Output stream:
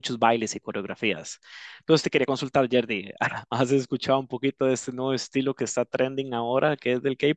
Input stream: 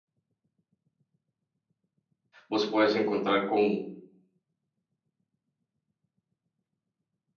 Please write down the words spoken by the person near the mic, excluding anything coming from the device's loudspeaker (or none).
vos puedes encontrar con